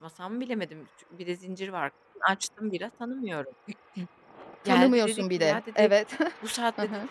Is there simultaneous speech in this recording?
Yes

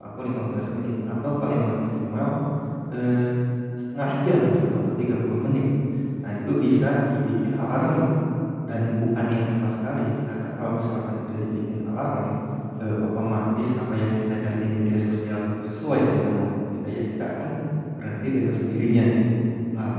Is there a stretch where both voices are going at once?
No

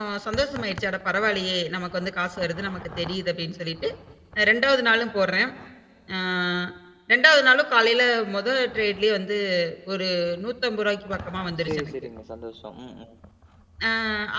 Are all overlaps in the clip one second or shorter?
Yes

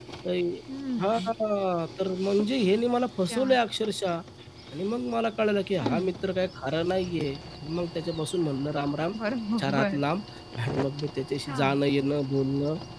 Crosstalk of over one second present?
No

